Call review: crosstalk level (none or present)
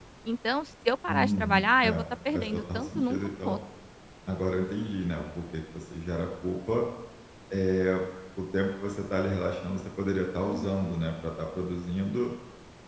present